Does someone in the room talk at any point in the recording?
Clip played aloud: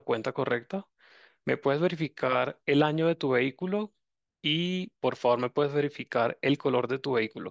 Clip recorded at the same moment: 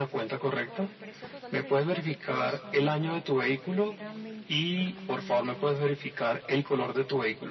Yes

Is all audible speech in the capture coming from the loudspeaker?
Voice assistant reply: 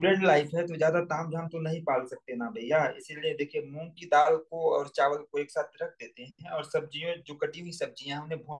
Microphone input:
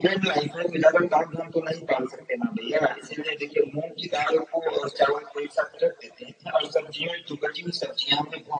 Yes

